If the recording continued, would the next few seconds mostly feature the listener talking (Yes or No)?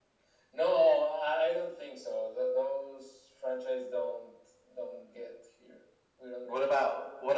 Yes